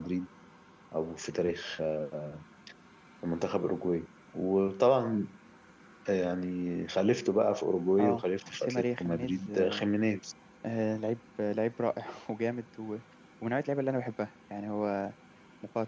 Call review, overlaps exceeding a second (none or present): present